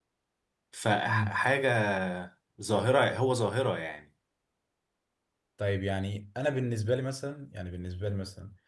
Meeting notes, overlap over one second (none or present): none